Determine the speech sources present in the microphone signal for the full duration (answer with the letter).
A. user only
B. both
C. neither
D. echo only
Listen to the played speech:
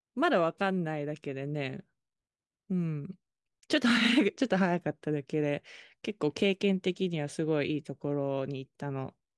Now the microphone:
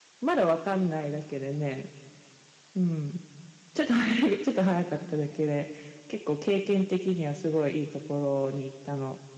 D